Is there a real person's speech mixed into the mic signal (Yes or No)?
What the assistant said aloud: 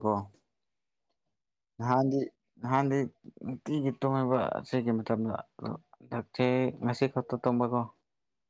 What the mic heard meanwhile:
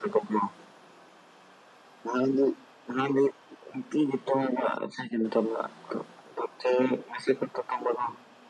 No